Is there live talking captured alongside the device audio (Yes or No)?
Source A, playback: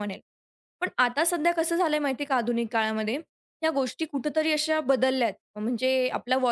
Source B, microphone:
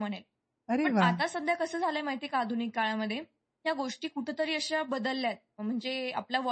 Yes